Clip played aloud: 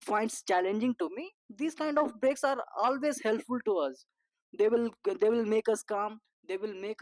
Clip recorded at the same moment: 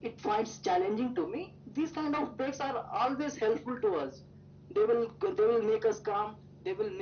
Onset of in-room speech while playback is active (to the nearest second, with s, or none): none